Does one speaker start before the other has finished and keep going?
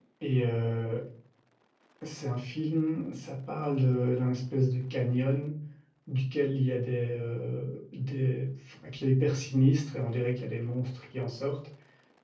No

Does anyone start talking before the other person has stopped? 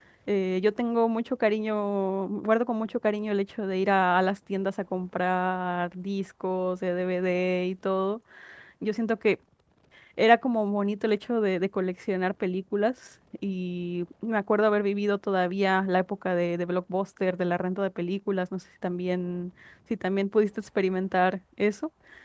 No

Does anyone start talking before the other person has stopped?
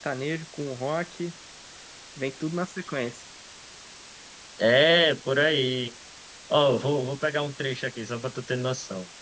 No

